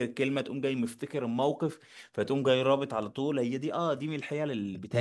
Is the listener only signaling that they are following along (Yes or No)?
Yes